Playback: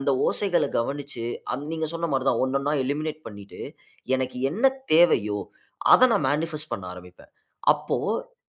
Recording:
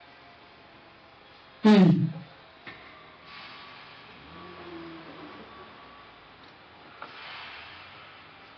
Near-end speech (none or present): present